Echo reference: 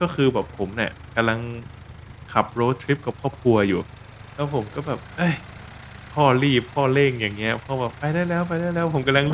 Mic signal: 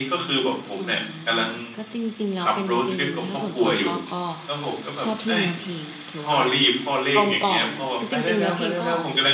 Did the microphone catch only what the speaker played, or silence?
No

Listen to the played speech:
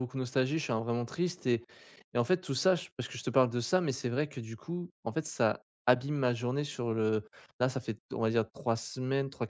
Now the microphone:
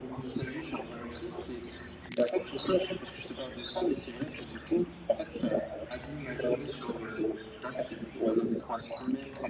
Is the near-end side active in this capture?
No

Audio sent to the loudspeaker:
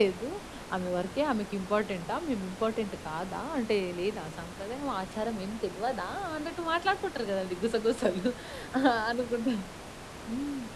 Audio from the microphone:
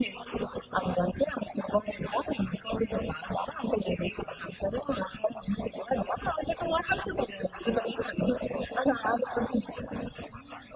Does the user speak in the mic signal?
No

